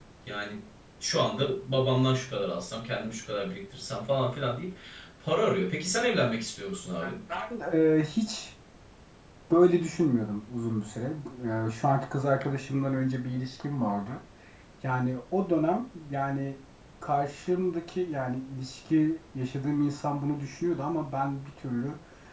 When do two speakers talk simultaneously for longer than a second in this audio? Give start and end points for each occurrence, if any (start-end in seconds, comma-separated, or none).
none